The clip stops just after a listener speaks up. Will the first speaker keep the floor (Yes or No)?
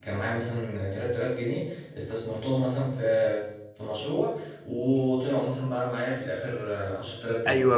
No